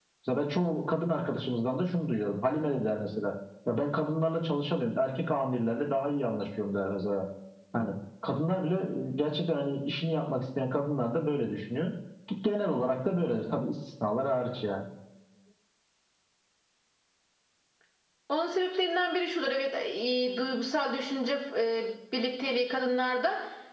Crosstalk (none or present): none